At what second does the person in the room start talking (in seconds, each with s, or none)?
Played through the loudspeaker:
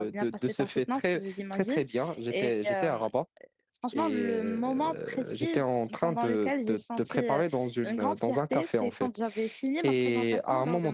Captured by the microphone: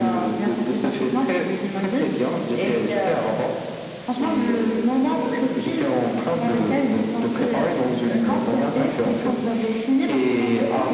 none